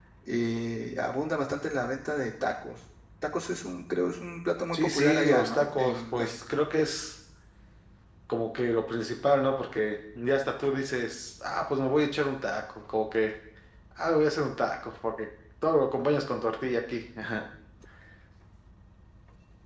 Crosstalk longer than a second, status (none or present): present